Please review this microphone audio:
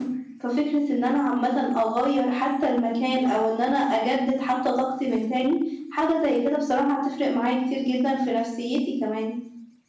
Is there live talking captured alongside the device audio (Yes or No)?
Yes